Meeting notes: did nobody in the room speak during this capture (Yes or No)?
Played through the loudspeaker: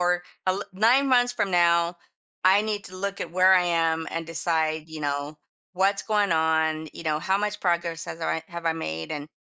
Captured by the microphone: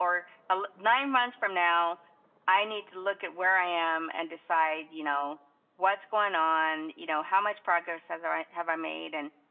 Yes